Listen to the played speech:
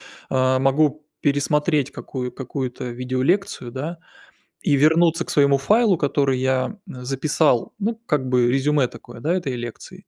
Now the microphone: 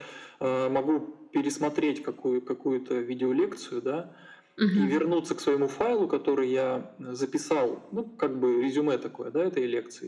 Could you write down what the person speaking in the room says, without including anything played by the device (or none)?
Мгм.